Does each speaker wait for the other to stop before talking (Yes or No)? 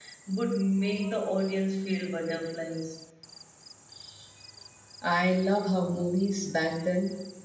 Yes